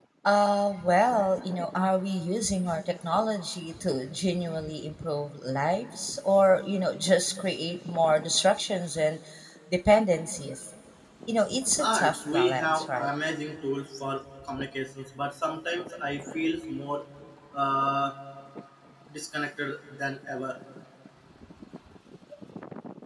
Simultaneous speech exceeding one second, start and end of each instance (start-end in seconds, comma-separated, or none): 11.8-13.1